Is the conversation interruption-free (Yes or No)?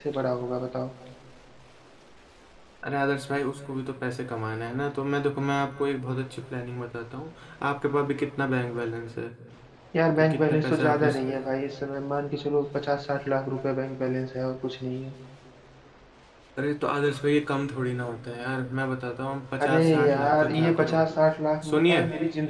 No